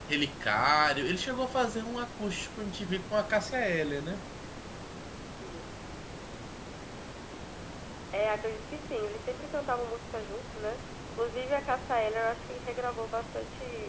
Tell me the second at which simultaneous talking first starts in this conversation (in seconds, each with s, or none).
none